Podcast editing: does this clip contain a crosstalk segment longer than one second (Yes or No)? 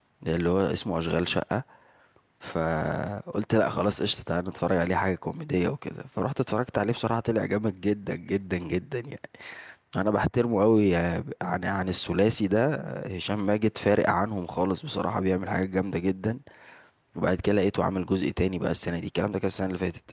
No